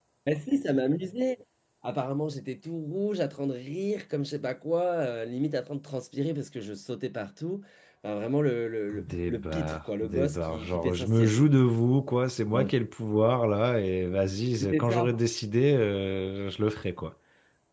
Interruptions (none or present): present